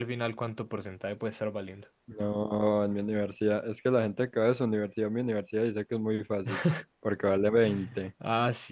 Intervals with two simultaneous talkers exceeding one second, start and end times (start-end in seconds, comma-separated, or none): none